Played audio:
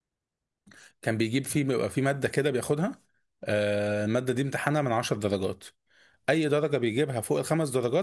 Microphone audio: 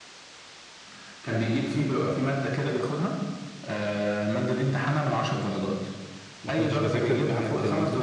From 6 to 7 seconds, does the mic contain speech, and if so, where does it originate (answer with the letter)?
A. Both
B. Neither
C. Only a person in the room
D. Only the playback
A